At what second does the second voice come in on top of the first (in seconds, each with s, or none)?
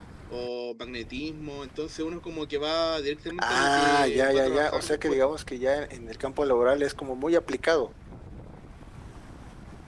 3.3 s